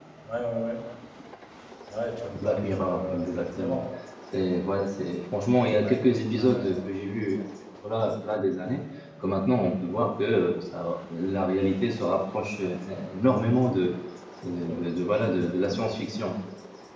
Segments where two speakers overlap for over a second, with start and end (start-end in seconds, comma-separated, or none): 2.4-3.8